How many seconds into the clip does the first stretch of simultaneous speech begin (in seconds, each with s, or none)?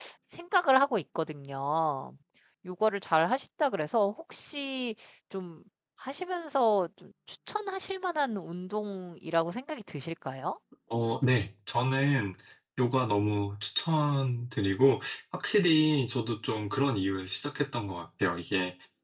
none